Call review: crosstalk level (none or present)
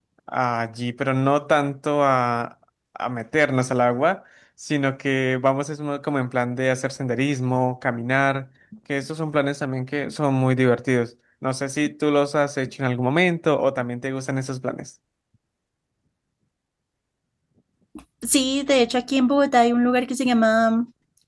none